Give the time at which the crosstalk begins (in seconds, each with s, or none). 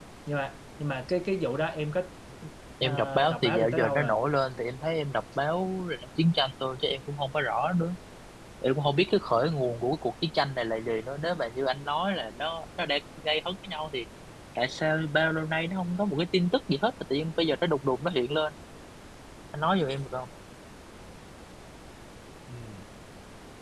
2.8 s